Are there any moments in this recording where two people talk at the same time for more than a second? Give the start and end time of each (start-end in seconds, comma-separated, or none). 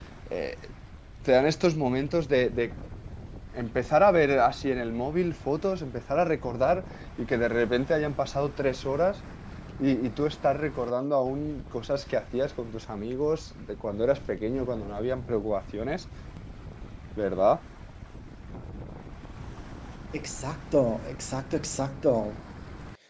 none